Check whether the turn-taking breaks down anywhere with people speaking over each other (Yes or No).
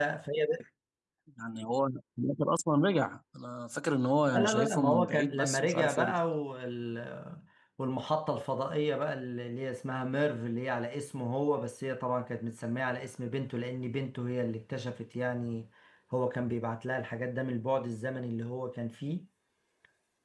Yes